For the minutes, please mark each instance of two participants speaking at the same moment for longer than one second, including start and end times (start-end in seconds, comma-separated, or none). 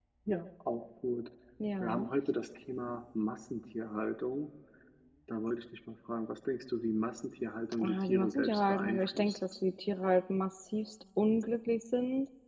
7.8-9.4